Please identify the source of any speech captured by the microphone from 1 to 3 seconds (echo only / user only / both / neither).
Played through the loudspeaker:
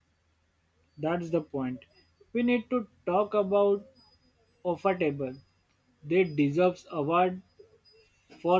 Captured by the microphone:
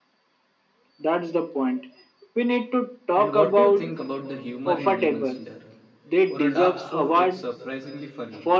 echo only